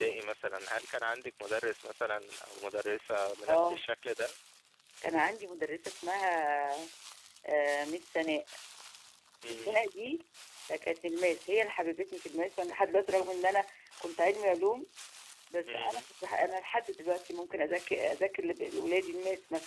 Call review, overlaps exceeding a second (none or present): none